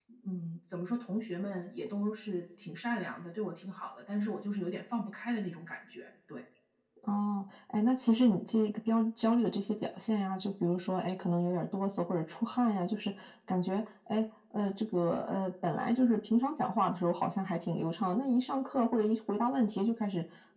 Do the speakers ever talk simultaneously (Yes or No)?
No